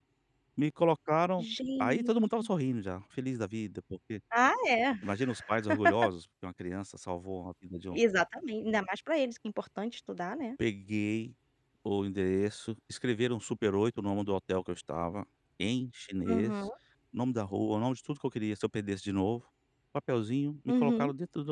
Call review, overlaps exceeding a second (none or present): none